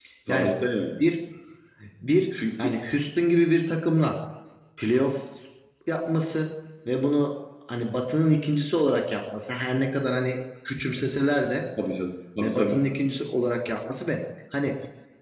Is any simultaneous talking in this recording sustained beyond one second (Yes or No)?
No